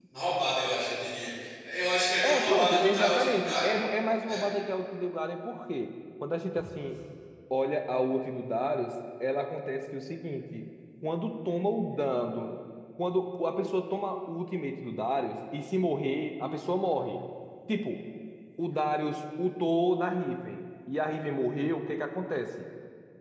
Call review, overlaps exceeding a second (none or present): present